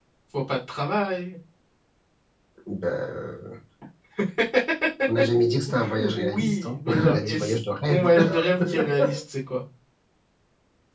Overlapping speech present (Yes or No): Yes